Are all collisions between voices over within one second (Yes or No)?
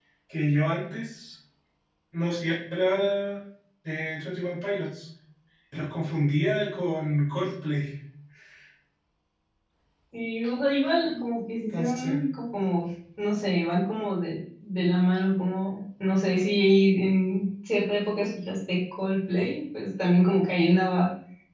Yes